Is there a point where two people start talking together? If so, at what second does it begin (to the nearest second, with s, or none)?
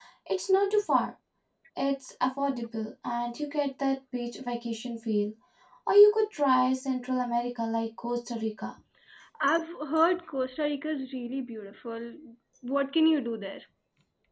none